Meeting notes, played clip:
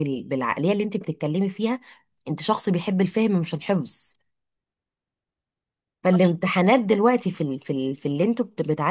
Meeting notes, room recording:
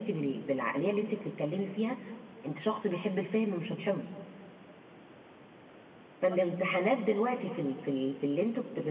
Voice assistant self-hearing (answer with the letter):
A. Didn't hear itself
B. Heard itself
B